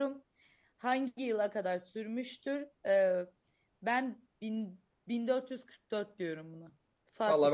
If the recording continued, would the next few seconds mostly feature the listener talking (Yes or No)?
Yes